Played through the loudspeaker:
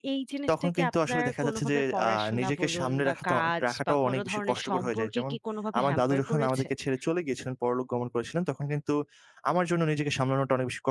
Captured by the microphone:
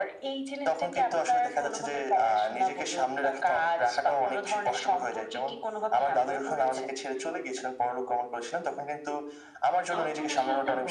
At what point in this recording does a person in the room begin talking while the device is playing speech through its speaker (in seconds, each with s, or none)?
9.9 s